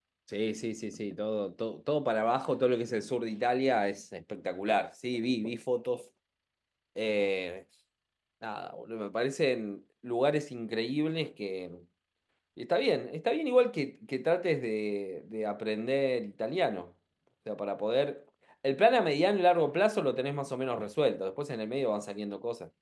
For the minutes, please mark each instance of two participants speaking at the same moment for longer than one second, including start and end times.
none

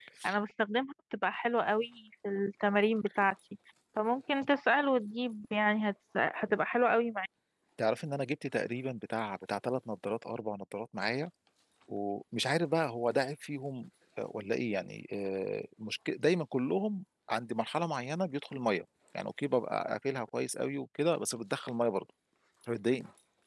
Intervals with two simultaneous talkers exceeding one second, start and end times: none

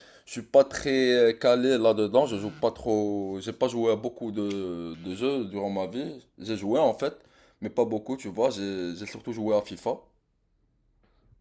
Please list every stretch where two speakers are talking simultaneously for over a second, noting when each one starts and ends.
none

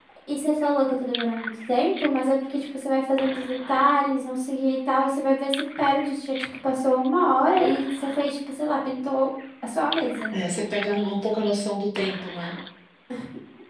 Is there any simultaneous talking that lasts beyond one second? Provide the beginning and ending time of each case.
none

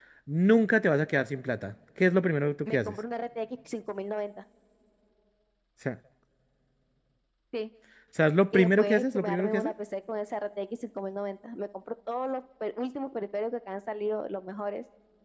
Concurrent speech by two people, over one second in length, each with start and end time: 8.5-9.7

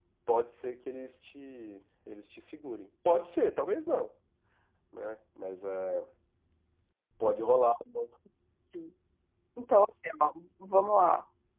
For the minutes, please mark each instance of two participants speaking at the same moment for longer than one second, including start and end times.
none

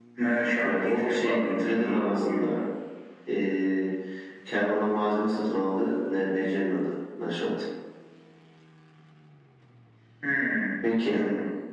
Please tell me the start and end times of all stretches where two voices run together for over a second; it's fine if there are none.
0.6-2.5

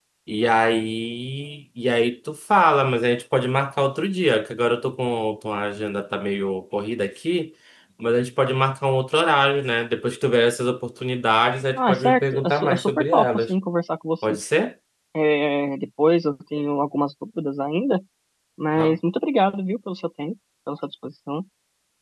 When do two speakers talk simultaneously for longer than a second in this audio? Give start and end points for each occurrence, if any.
11.8-13.5

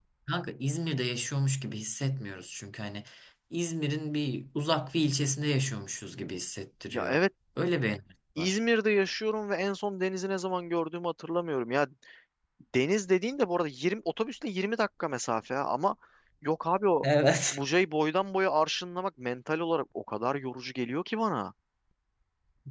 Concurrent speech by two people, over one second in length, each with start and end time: none

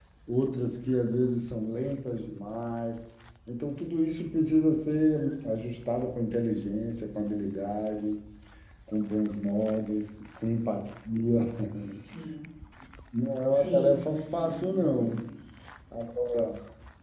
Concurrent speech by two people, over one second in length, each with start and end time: 13.5-15.2

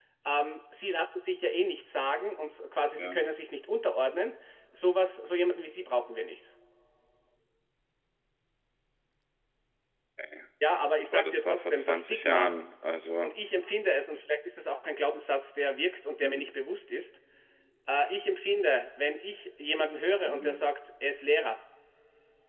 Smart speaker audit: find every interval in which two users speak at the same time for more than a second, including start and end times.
11.1-12.6

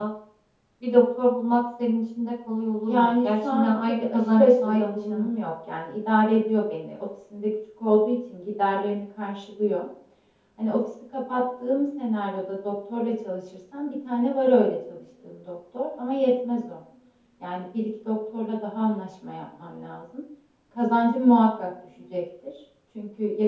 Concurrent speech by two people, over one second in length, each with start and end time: 2.8-5.3

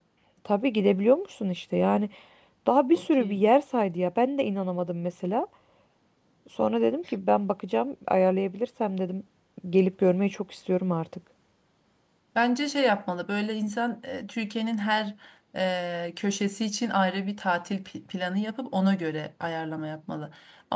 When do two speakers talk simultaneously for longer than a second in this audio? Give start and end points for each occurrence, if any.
none

